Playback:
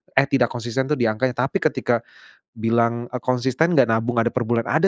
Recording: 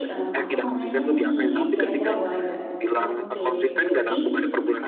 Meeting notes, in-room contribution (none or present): present